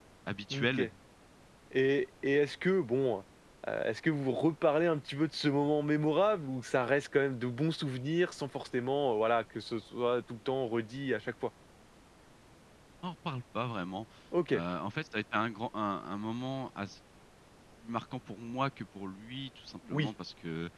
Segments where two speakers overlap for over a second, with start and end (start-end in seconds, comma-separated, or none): none